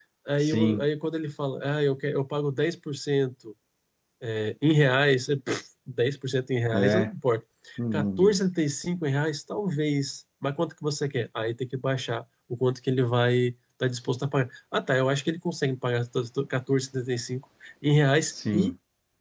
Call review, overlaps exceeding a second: none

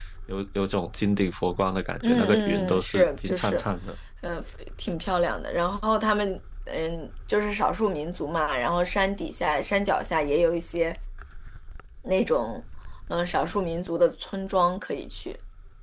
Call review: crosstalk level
present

